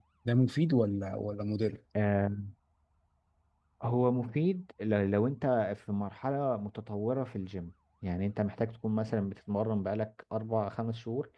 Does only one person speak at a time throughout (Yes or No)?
Yes